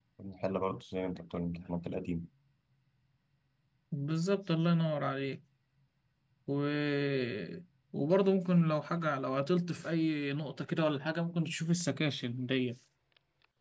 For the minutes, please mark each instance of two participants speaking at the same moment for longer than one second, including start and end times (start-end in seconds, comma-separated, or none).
none